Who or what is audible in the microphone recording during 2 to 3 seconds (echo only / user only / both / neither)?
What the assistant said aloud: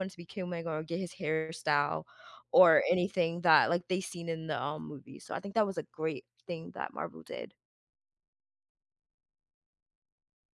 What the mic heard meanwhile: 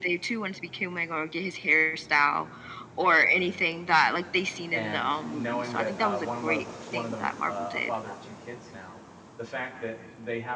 echo only